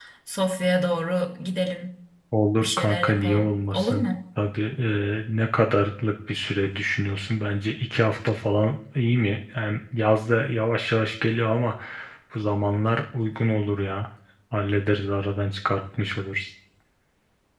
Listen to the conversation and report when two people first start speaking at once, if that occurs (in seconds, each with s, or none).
2.6 s